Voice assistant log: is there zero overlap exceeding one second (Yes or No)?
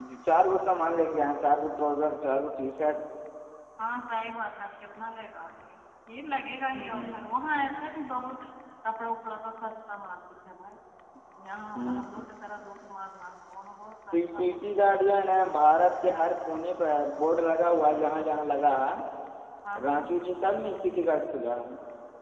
Yes